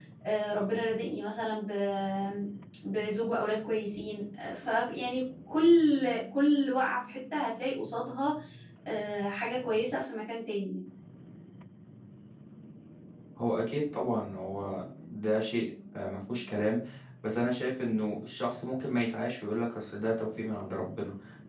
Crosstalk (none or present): none